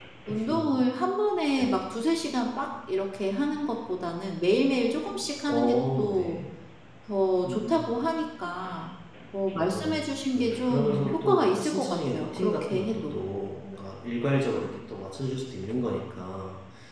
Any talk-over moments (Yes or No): Yes